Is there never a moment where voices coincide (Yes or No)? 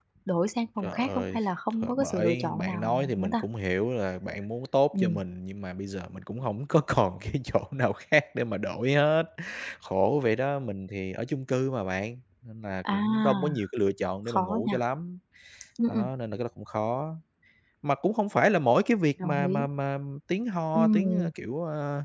No